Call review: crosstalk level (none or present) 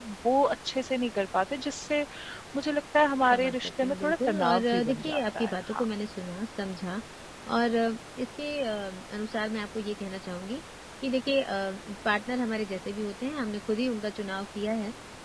present